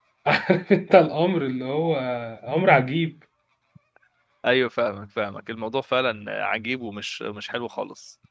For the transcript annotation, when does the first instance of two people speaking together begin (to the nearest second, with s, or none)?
none